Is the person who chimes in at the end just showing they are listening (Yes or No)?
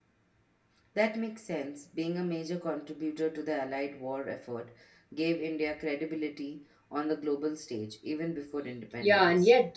No